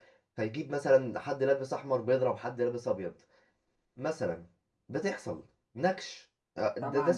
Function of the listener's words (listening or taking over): taking over